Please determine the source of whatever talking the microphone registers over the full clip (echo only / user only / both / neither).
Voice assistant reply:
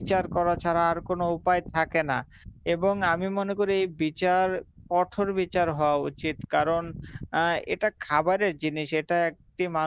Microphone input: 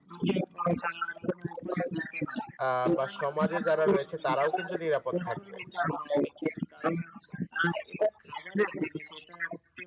both